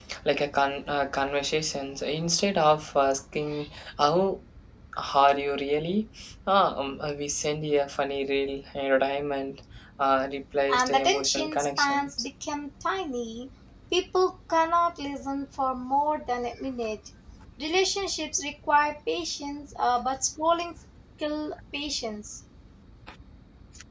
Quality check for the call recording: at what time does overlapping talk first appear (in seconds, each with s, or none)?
10.7 s